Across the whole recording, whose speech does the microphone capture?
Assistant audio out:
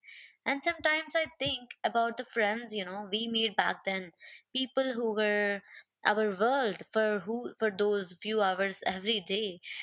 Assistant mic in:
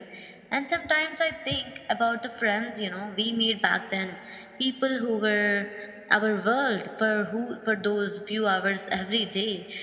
echo only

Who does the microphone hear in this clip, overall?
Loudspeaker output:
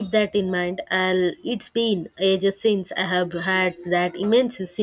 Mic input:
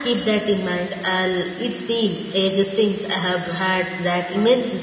echo only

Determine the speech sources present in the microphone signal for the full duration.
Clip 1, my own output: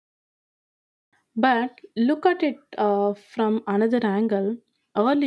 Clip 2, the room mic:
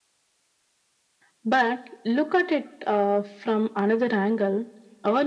echo only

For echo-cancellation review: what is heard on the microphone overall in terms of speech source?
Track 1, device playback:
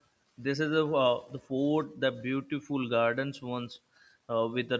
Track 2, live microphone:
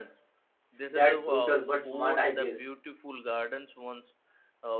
both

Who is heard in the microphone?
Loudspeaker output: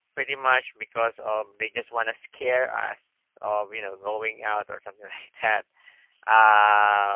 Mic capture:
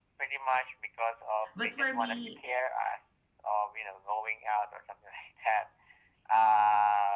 both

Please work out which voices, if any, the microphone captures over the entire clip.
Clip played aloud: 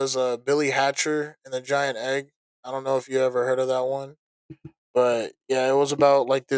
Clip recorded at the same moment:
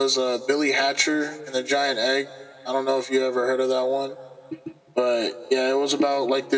echo only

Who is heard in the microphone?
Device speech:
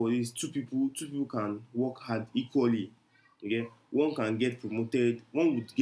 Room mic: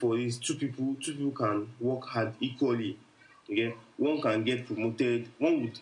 echo only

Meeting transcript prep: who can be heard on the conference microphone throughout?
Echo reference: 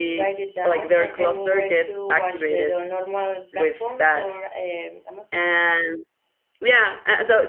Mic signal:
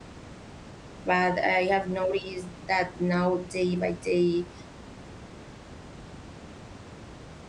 user only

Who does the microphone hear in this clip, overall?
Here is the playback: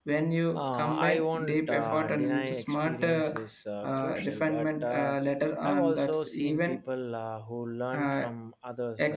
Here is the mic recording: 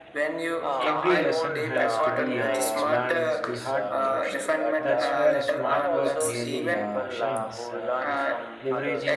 both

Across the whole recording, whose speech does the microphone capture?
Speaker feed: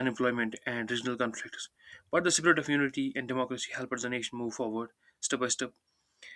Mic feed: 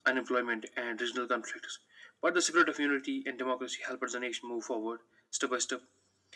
echo only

